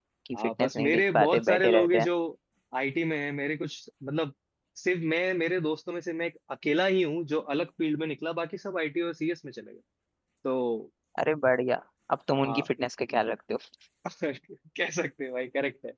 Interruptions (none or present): present